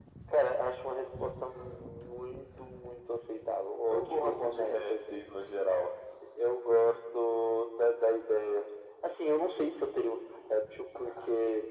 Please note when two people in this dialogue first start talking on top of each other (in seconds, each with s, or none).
3.9 s